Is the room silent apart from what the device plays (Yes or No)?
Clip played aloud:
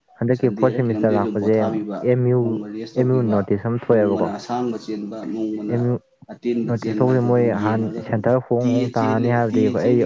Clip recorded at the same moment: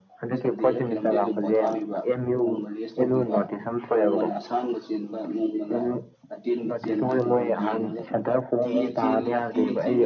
Yes